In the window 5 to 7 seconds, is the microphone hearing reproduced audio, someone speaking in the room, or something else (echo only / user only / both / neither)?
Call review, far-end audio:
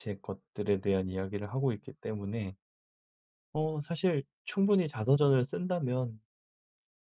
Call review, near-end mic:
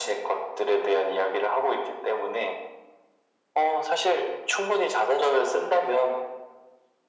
echo only